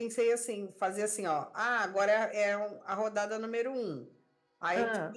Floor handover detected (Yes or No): No